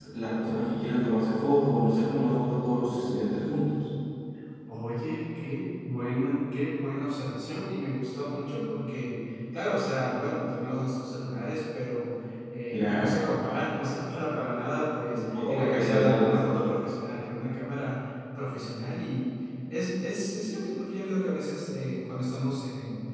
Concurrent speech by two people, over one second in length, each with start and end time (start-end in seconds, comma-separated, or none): 15.1-16.5